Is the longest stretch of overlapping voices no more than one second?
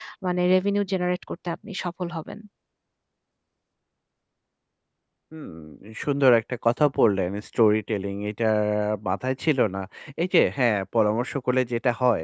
Yes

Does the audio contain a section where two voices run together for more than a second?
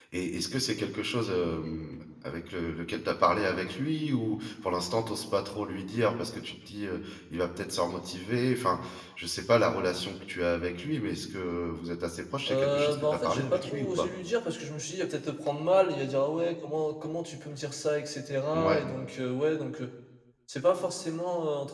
Yes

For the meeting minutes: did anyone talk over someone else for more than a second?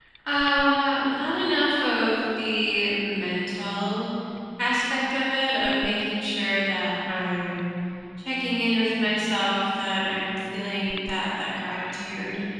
No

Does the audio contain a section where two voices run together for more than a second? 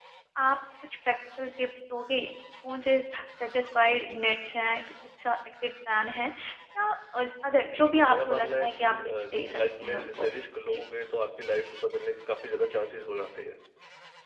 Yes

